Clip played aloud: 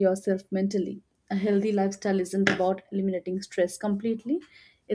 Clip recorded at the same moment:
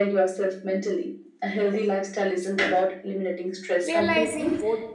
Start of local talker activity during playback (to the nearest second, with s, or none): 4 s